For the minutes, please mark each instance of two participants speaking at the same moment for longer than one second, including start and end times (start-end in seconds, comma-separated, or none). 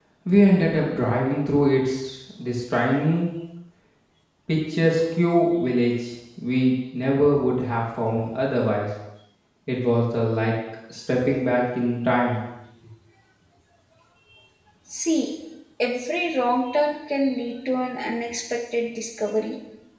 none